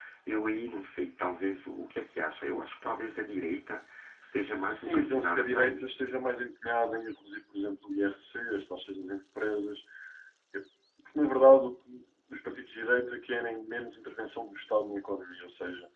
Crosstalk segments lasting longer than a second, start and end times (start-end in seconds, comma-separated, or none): 4.5-5.8